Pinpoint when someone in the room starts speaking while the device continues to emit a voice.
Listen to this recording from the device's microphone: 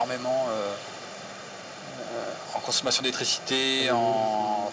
3.8 s

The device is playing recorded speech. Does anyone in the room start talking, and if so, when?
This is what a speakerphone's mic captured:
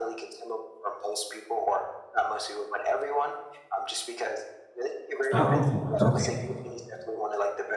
5.3 s

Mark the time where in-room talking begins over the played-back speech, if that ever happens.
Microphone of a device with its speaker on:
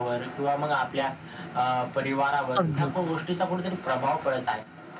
2.6 s

